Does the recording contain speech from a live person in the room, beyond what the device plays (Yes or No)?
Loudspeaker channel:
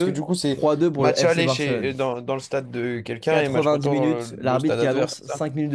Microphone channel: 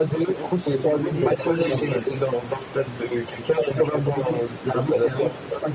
Yes